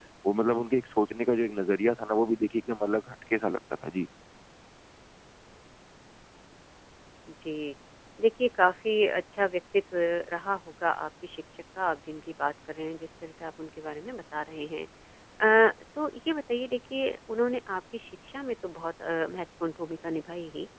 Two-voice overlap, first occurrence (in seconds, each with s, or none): none